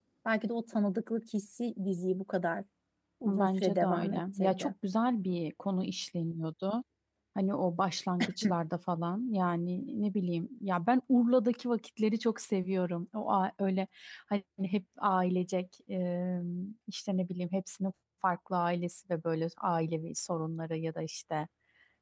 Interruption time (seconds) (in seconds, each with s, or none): 3.2 s